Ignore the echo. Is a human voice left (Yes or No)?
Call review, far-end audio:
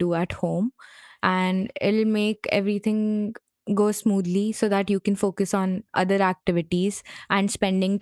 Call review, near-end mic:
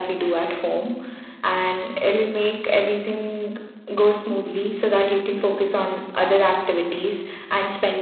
No